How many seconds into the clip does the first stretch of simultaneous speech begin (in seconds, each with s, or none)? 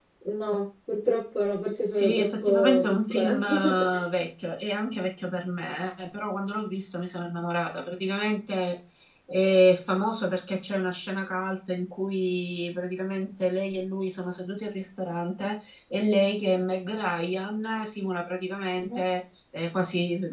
1.9 s